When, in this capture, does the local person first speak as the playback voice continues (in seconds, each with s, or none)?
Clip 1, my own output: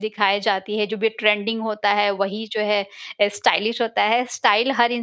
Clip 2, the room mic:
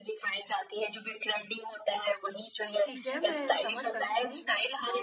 2.8 s